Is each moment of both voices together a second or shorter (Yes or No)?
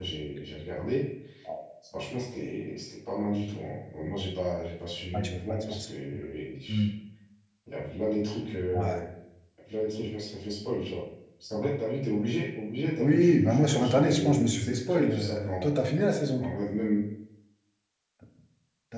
No